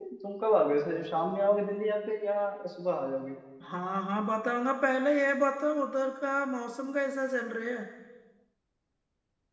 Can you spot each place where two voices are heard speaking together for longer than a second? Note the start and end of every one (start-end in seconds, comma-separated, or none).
none